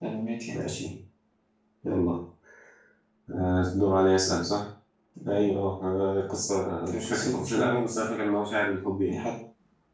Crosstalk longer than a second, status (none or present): present